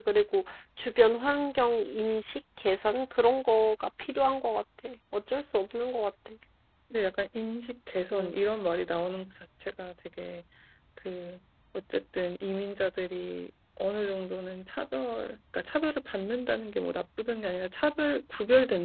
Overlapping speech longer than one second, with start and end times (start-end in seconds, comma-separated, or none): none